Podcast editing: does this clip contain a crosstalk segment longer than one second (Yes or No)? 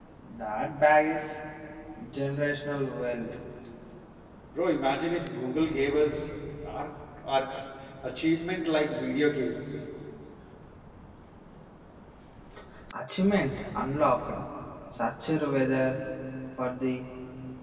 No